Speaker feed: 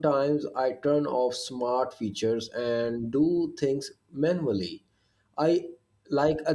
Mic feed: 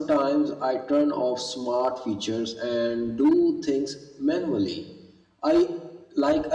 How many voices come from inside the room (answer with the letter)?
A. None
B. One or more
A